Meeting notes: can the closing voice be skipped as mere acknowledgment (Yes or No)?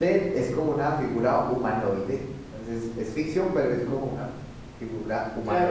No